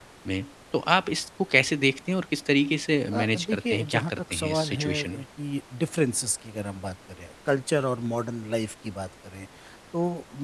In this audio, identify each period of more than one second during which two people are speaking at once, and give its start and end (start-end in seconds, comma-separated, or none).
3.1-5.2